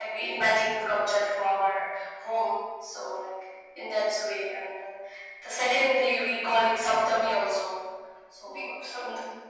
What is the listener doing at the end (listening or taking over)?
taking over